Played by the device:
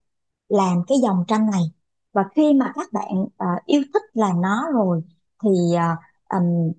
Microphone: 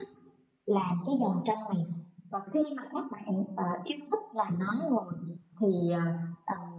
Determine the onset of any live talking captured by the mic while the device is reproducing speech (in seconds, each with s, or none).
none